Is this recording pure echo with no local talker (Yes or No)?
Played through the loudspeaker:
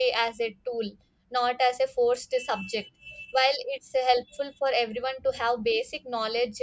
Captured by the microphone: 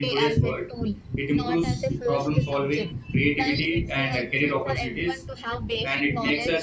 No